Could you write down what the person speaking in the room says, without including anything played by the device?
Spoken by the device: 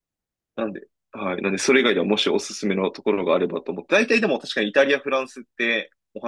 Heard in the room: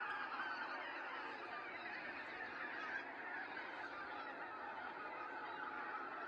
none

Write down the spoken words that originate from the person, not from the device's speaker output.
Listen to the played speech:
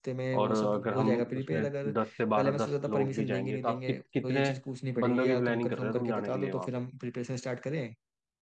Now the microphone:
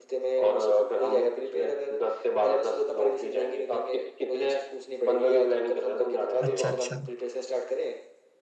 अच्छा अच्छा

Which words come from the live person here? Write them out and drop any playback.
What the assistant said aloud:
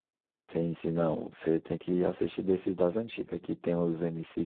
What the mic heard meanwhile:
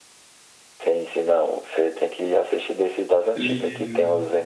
Ele,

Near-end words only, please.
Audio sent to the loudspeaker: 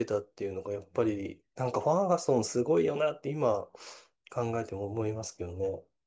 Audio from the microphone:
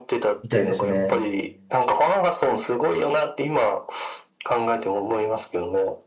みたいですね。

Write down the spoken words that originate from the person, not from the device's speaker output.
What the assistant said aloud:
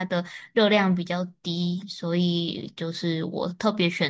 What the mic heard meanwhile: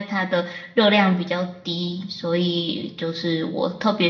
none

